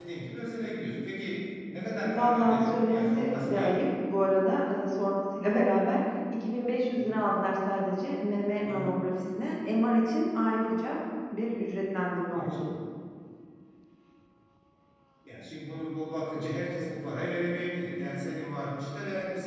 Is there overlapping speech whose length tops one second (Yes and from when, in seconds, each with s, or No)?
Yes, from 2.0 s